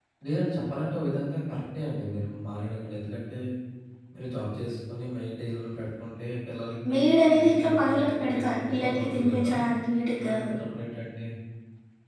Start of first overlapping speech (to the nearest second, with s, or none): 7 s